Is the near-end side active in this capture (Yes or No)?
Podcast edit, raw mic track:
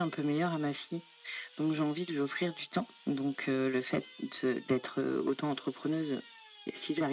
No